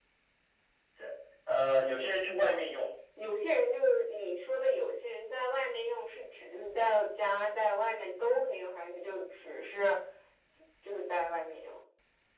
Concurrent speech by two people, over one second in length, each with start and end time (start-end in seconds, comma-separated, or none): none